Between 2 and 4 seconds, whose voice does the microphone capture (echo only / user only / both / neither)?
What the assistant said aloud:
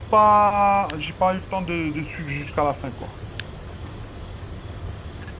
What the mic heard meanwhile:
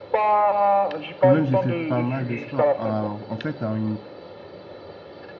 both